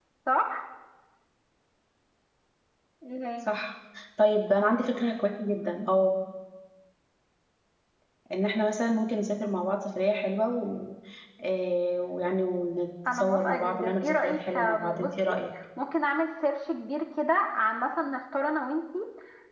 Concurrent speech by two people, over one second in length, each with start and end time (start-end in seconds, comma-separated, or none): 13.1-15.3